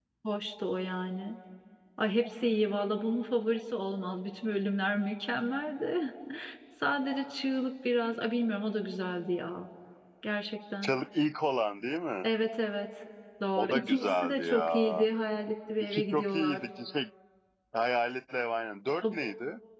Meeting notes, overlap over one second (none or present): present